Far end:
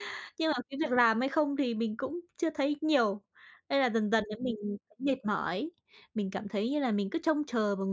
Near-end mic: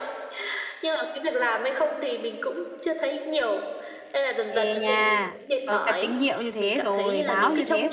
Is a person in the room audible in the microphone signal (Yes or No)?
Yes